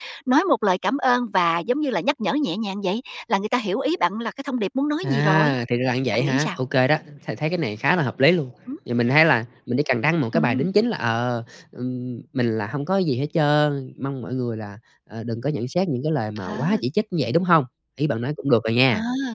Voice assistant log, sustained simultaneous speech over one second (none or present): none